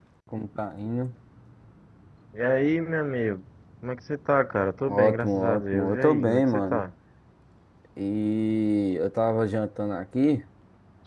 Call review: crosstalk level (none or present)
present